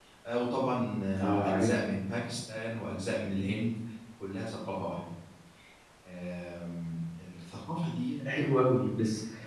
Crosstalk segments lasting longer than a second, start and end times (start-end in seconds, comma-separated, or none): none